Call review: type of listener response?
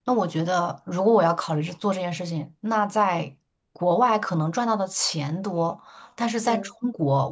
listening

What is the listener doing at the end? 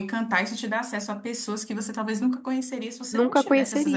taking over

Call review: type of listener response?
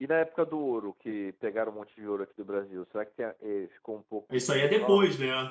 taking over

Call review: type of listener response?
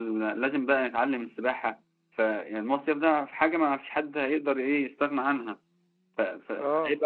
listening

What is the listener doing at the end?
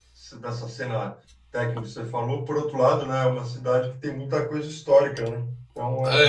taking over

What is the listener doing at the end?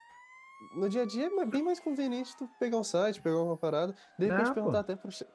listening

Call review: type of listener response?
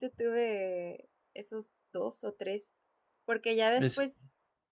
listening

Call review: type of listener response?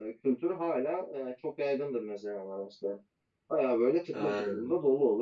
listening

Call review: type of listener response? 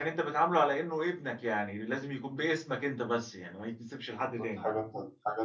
taking over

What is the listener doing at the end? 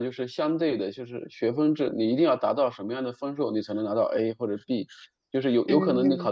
listening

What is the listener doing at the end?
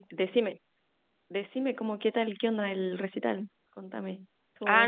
taking over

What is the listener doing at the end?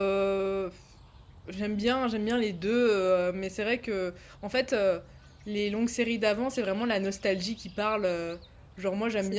listening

